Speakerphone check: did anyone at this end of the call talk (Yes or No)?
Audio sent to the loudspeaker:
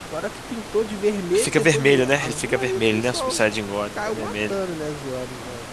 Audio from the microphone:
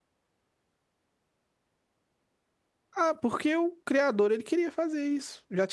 Yes